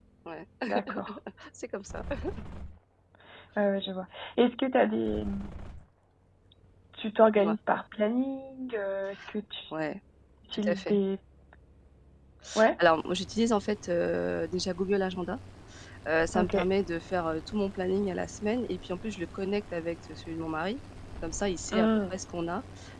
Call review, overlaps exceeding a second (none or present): none